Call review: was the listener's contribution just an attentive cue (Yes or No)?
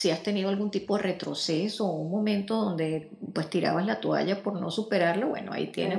Yes